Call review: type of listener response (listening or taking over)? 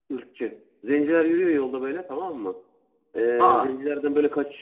listening